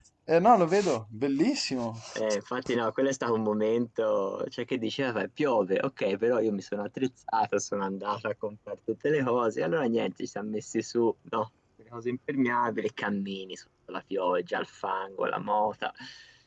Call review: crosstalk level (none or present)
none